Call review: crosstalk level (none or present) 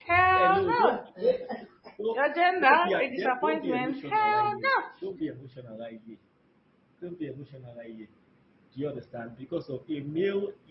present